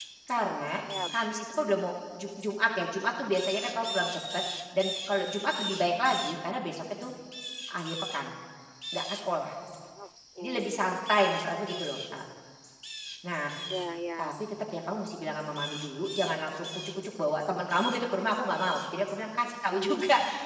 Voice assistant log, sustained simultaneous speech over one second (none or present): none